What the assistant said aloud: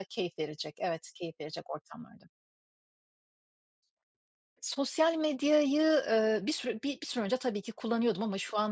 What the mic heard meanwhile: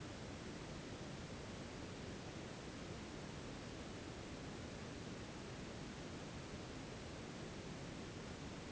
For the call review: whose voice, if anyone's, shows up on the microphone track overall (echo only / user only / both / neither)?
neither